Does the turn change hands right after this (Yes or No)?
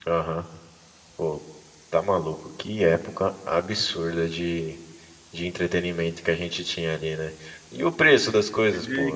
No